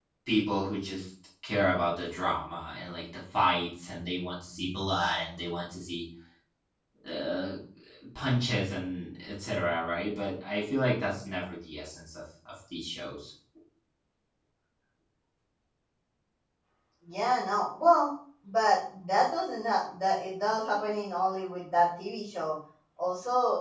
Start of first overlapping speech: none

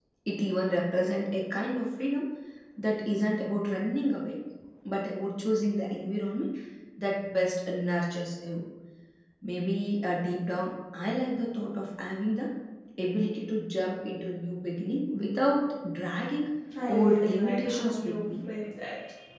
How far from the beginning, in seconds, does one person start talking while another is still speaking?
16.9 s

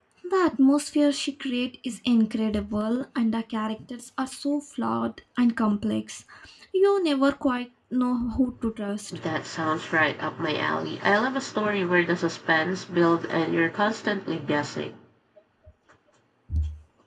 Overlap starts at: none

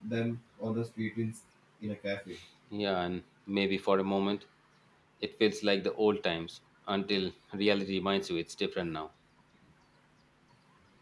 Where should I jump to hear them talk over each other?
none

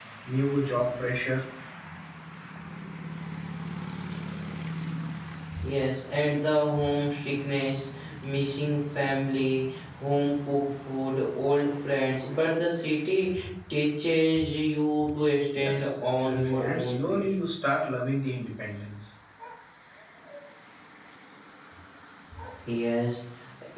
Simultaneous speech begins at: 15.5 s

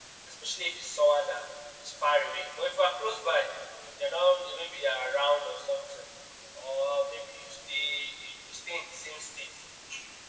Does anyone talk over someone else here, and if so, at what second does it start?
none

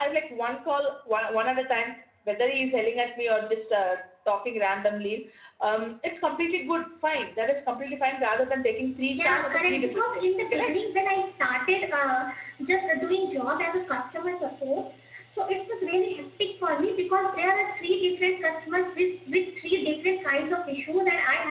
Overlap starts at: 9.1 s

